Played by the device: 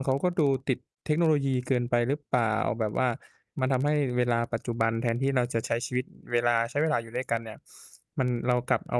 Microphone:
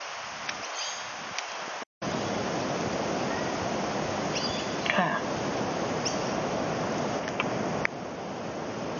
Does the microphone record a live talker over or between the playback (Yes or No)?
Yes